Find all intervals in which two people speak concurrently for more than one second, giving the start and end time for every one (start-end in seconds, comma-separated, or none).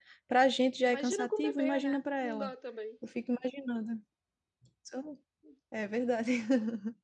0.9-2.5